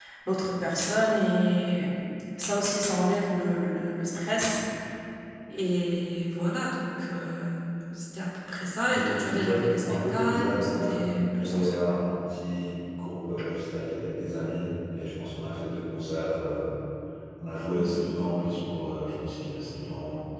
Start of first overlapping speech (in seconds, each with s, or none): 8.8 s